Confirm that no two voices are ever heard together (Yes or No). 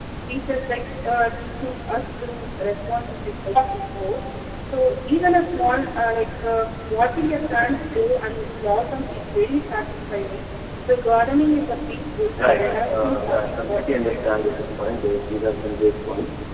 No